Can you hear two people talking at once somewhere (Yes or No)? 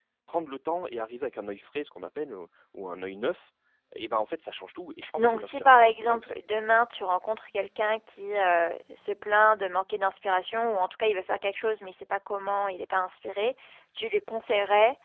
Yes